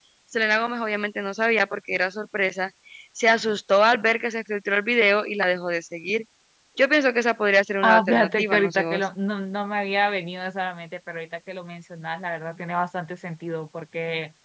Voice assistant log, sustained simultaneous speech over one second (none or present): present